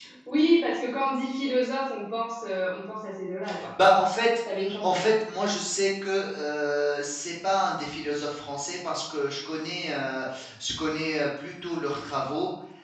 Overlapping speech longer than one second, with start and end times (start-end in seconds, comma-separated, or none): none